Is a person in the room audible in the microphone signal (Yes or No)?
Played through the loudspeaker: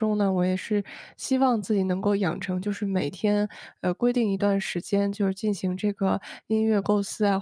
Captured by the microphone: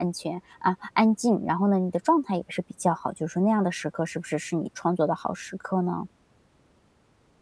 Yes